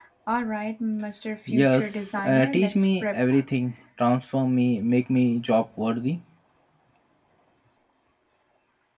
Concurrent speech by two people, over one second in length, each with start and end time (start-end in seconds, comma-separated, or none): 1.5-3.2